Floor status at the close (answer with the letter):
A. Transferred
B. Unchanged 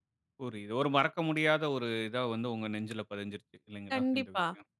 A